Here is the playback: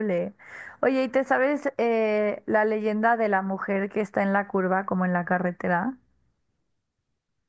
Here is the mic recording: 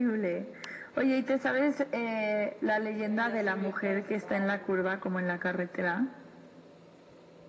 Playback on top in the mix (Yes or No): Yes